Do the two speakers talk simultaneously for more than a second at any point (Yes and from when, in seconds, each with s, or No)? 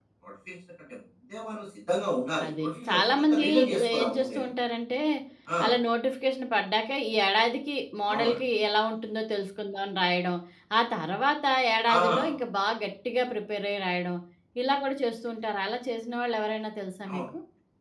Yes, from 2.4 s